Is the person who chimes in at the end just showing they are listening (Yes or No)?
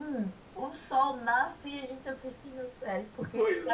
Yes